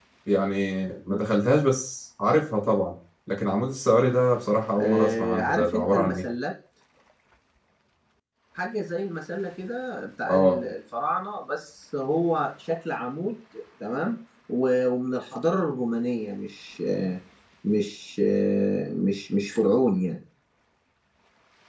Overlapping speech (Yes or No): Yes